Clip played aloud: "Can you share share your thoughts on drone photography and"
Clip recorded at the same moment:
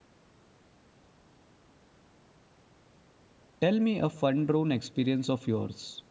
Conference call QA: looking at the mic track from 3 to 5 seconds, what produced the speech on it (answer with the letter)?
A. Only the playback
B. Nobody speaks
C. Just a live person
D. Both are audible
C